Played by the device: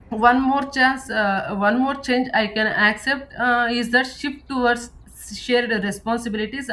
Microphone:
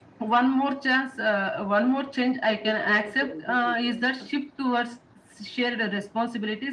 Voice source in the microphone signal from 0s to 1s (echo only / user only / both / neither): echo only